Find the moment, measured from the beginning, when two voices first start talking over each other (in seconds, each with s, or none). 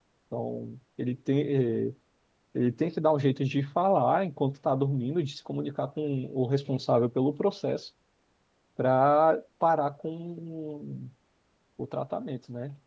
none